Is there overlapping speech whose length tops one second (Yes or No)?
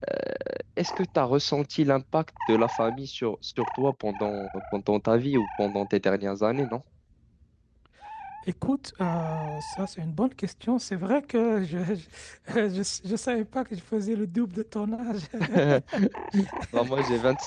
No